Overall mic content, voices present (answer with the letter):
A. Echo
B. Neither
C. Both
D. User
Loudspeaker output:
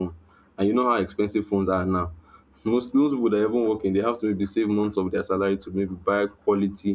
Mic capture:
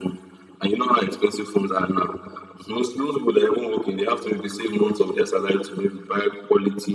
A